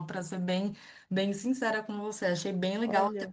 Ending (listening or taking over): listening